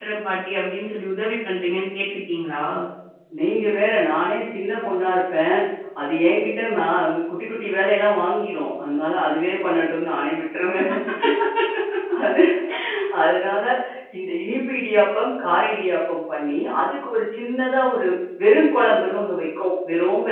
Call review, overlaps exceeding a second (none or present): none